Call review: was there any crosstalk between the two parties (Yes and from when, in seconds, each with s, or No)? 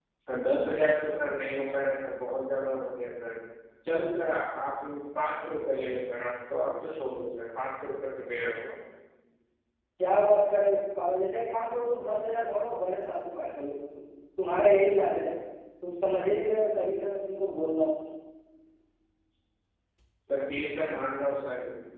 No